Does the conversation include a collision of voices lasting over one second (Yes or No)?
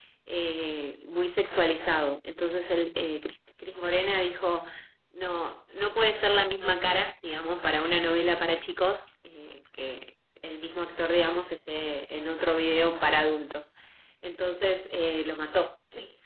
No